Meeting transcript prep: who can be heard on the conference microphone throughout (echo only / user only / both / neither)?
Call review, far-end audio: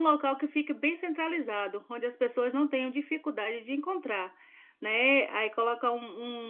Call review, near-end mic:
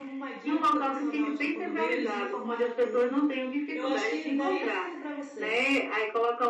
both